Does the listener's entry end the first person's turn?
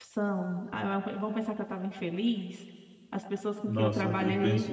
Yes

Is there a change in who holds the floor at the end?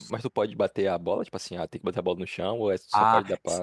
Yes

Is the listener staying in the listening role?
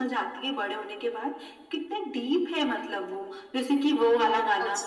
Yes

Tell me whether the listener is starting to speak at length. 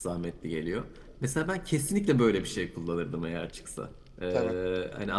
No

